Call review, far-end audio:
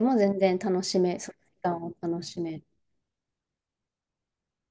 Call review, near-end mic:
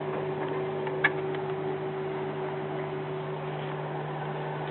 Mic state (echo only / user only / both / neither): neither